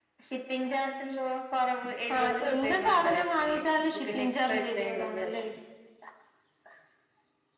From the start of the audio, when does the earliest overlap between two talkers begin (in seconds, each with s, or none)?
2.1 s